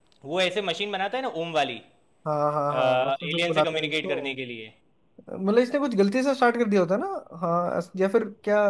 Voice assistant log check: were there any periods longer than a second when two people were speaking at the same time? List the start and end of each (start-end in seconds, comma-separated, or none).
2.7-4.2